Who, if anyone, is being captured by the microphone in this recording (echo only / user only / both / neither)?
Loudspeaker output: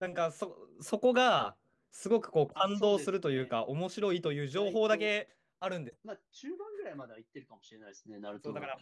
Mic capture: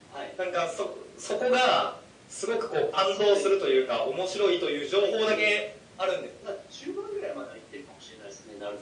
echo only